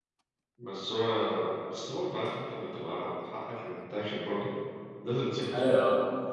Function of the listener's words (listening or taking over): taking over